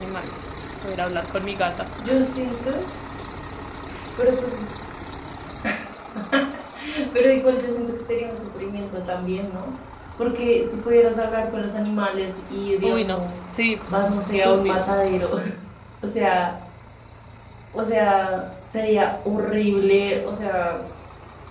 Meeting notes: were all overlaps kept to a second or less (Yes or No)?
Yes